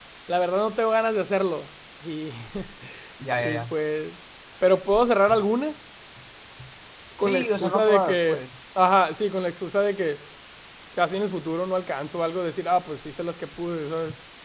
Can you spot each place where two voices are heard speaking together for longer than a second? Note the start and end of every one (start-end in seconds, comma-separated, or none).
7.2-8.4